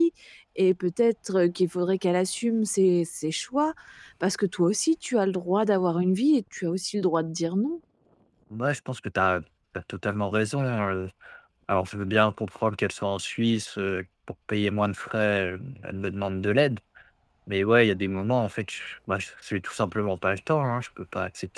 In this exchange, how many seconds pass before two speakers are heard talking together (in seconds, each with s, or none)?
none